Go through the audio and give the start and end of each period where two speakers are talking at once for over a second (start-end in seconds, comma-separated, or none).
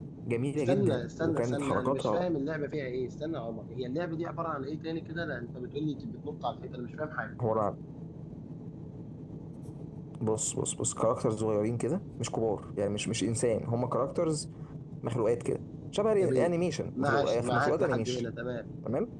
0.6-2.2, 17.0-18.2